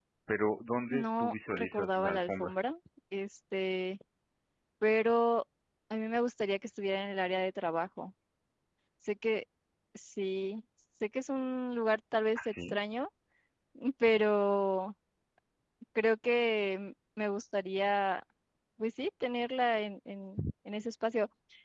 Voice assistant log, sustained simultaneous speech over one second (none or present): present